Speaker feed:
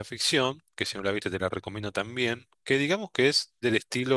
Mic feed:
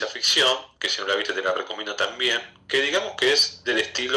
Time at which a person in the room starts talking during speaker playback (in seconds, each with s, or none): none